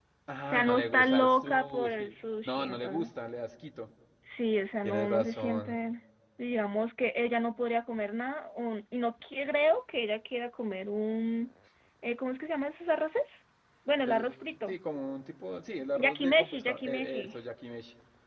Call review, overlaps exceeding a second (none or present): present